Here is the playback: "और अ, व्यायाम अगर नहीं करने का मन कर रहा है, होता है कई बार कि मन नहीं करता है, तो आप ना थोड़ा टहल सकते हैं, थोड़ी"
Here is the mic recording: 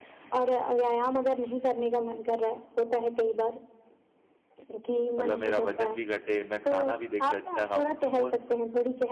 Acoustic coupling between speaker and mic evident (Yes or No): Yes